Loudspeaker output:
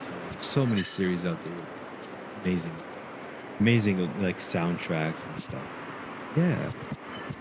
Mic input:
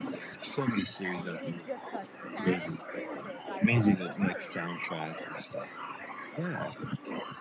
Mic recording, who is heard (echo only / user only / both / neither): both